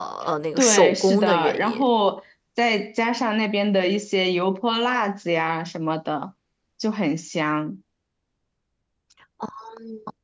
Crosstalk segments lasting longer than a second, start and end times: 0.6-1.9

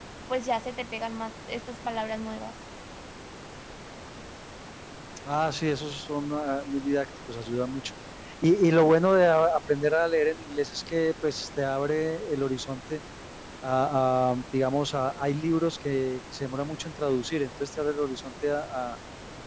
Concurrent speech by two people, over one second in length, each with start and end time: none

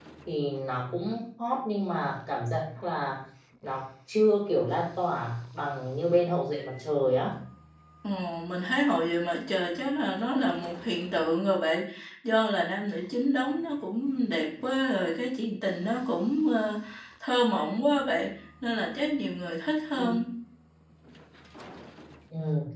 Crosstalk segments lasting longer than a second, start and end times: none

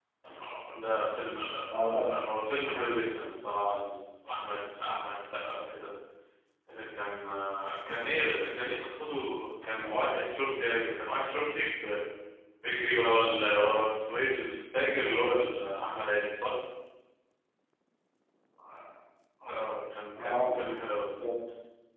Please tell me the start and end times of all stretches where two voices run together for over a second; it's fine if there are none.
none

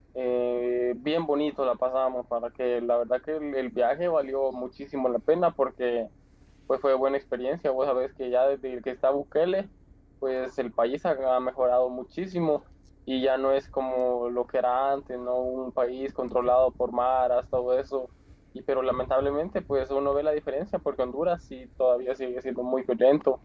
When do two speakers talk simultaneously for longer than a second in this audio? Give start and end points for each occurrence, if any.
none

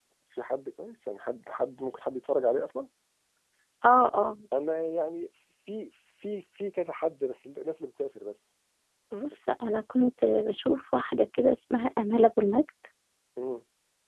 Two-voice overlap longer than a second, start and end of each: none

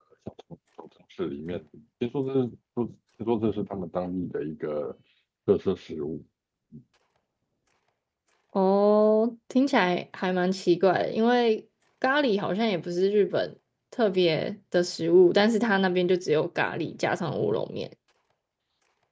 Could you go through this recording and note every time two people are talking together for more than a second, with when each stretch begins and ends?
none

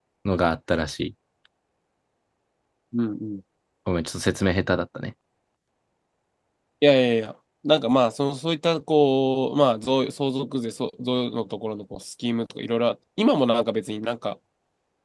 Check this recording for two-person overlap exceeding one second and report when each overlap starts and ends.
none

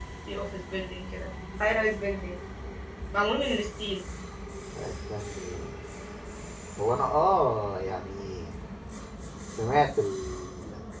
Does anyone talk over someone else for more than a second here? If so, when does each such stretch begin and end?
none

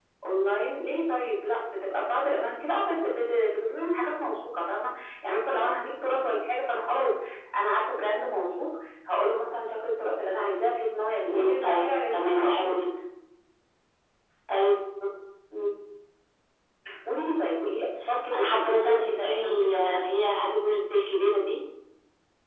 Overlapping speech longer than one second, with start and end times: 11.3-12.8, 18.4-20.0

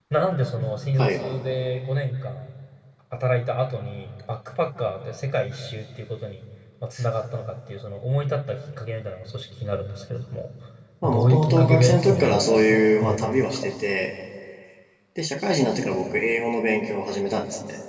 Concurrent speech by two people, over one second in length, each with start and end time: 11.0-13.7

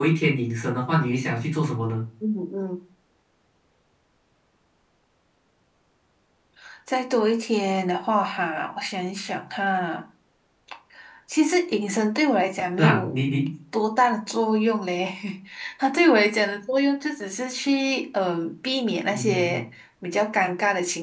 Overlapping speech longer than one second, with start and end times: none

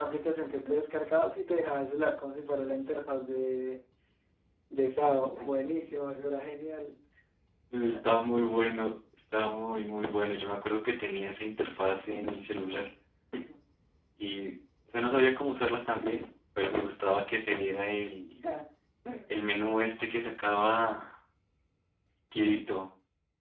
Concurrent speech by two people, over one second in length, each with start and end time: none

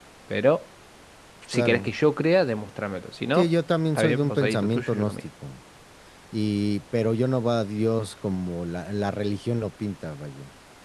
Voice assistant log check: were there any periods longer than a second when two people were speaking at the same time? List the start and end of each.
4.0-5.2

